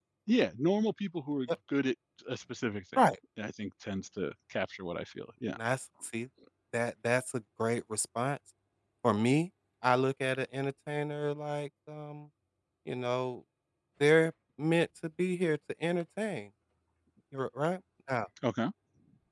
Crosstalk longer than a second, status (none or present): none